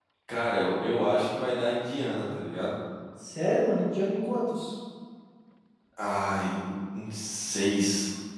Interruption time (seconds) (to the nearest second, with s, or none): none